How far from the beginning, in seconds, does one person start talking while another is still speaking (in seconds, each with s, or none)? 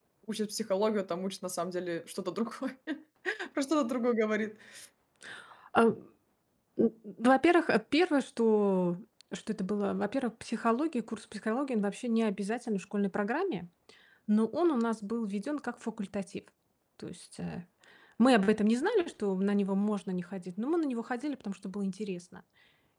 none